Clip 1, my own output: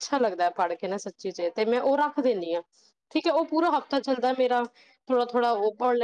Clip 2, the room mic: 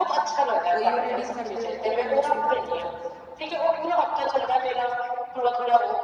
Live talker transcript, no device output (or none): ਓਹੀਓ ਰੀਡਿੰਗ ਕਰਦੇ ਹੋ ਇੱਕ ਨਿਊਜ਼ਪੇਪਰ